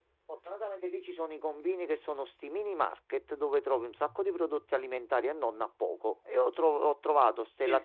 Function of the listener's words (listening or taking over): listening